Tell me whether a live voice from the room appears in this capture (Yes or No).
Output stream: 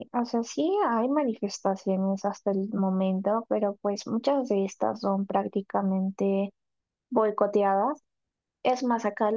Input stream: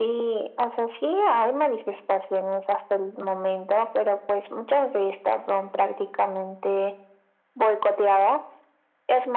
No